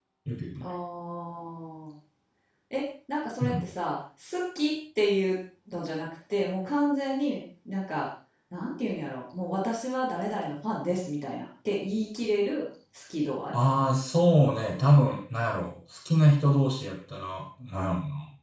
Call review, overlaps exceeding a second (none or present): none